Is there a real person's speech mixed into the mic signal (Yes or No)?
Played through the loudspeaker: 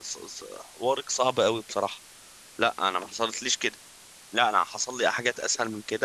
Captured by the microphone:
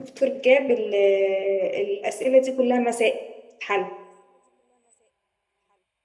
Yes